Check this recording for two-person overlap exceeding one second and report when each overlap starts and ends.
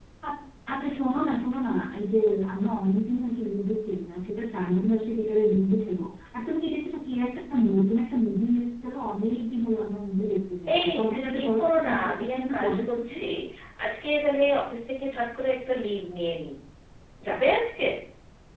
11.4-13.1

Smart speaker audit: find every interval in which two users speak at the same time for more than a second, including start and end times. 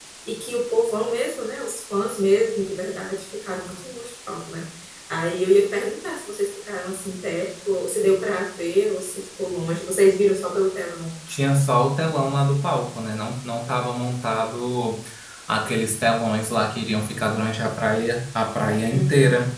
none

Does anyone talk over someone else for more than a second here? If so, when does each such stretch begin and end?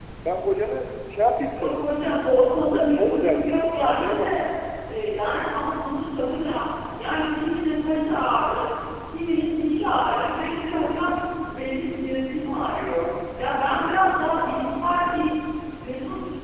2.7-4.4

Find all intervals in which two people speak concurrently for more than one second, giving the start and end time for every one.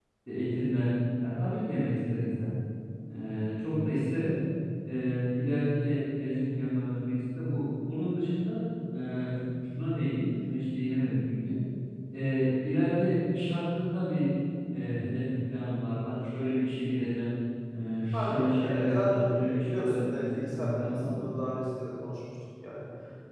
18.1-21.2

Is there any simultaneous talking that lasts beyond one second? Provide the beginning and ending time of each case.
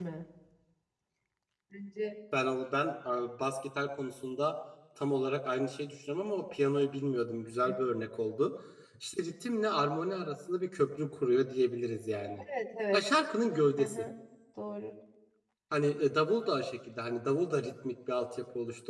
none

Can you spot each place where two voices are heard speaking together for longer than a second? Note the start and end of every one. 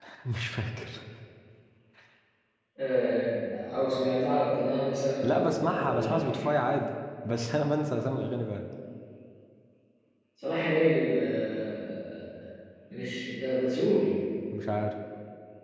5.2-6.4

